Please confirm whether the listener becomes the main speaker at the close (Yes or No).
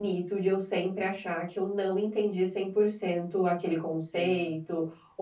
No